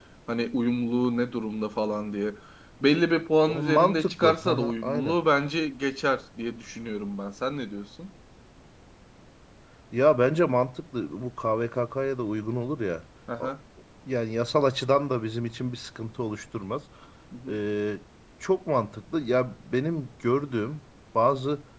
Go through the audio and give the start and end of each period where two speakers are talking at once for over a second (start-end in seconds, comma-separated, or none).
3.5-5.2